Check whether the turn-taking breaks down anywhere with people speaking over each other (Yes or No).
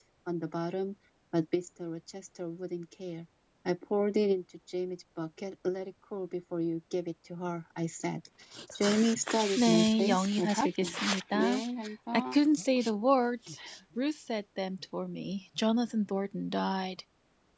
Yes